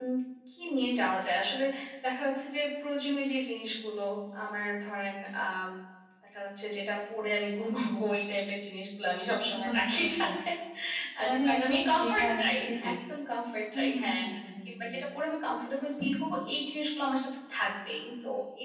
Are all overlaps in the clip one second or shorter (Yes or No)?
No